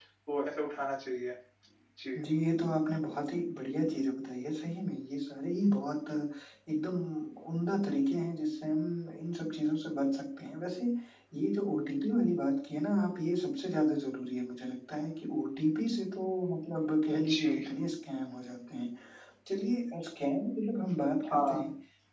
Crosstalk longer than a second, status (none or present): none